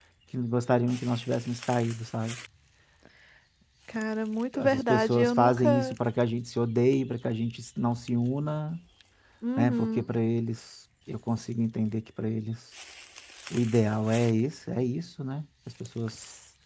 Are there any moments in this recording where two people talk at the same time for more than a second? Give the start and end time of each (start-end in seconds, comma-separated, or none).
4.5-6.0